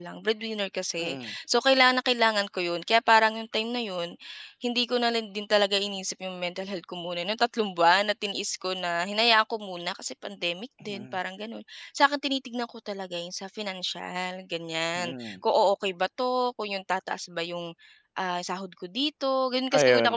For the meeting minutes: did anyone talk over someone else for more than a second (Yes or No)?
No